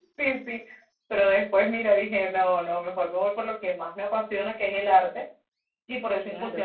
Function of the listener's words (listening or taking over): listening